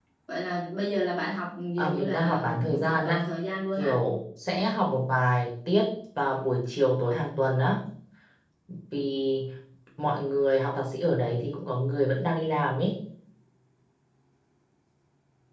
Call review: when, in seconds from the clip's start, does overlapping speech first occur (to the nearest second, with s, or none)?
2 s